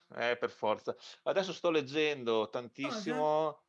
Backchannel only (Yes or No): Yes